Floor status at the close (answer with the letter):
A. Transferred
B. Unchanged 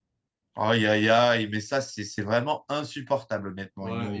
A